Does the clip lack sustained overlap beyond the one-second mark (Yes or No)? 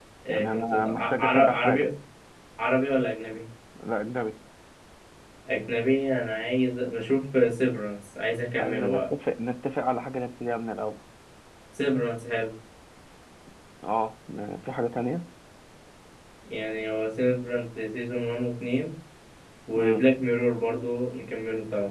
No